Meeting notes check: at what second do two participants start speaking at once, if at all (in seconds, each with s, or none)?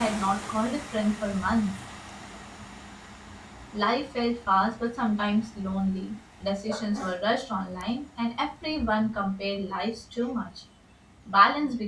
none